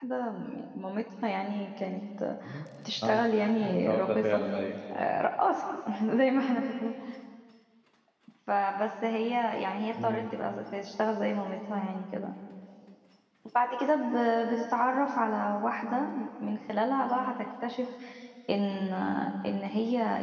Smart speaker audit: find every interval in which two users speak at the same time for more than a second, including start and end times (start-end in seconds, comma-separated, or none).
3.0-4.4